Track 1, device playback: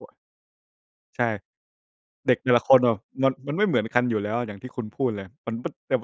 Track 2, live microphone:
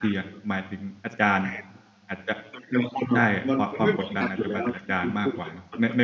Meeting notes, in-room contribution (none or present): present